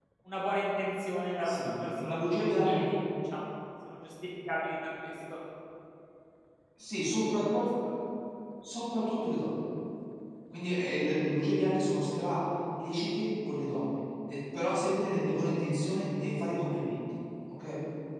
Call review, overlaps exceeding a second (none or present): present